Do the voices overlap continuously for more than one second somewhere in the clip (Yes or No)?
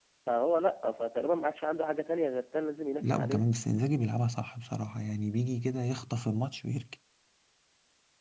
No